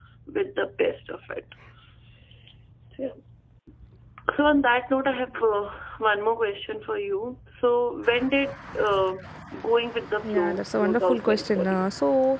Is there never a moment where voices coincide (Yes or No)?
No